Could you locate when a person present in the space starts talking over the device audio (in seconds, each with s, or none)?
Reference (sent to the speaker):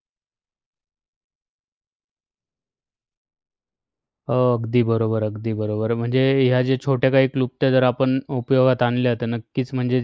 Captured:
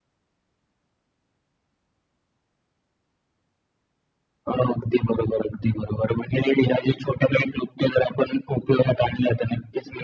none